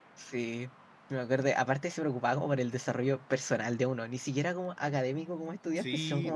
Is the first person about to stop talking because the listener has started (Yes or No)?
Yes